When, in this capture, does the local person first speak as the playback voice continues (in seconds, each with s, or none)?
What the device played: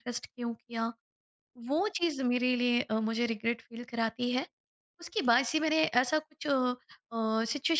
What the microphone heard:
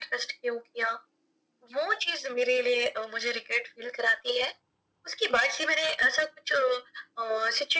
none